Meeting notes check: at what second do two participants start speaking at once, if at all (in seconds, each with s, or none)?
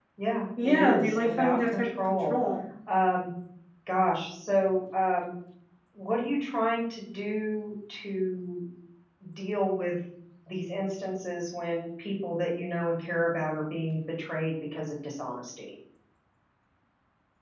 0.6 s